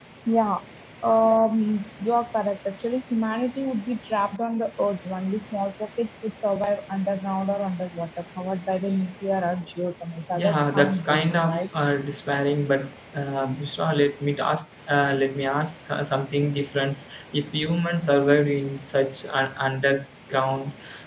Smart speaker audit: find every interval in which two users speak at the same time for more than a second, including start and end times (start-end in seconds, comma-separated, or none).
10.4-11.6